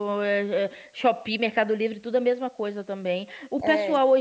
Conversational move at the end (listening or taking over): listening